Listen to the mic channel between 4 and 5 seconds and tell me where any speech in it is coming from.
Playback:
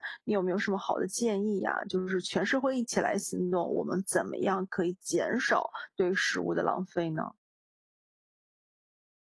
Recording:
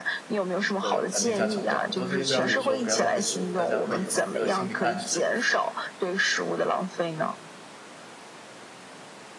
both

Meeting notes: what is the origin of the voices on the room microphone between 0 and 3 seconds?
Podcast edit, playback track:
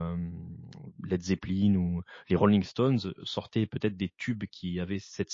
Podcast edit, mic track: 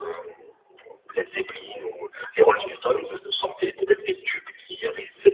echo only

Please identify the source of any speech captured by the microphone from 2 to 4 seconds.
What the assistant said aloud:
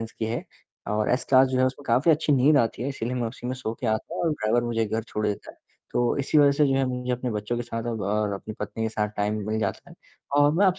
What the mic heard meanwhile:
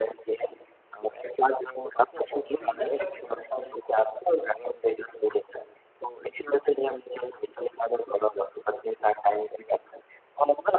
both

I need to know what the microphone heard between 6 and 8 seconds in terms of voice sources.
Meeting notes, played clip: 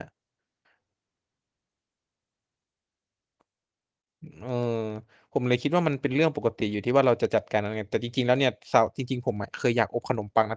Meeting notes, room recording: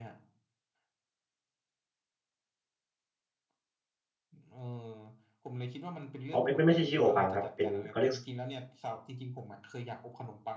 both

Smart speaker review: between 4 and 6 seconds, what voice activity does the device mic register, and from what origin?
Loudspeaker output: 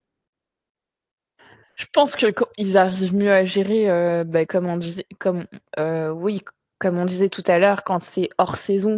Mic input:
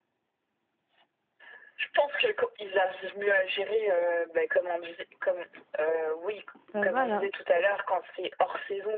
echo only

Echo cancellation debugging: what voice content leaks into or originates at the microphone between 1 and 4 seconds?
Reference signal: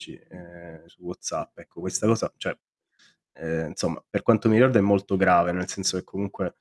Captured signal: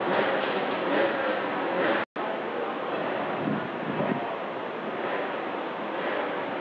neither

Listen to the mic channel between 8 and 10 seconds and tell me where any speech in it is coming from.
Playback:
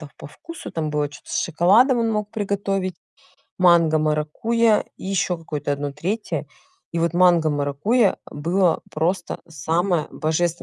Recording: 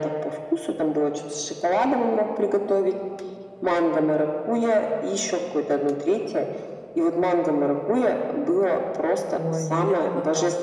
both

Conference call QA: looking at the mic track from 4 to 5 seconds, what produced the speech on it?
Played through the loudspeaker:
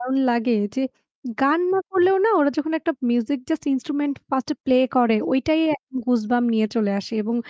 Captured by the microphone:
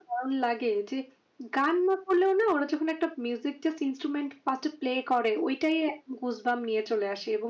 echo only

